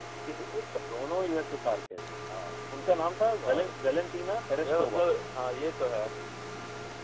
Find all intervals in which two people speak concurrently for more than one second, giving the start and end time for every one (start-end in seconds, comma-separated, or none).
none